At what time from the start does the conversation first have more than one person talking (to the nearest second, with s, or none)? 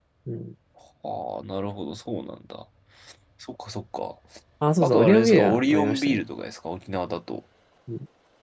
5 s